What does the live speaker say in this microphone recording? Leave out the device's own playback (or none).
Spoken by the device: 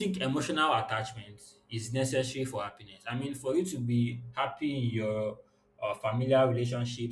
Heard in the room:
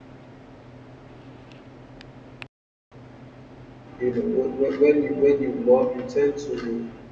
You know, when, when when you when you love, you tend to